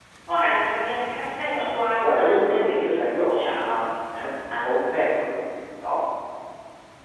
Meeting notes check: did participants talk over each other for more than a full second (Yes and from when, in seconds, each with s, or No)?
Yes, from 1.5 s